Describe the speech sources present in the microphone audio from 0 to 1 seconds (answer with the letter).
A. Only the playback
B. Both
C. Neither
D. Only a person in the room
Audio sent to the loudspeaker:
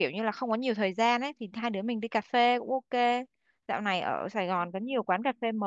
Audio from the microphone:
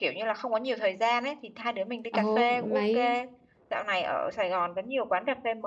A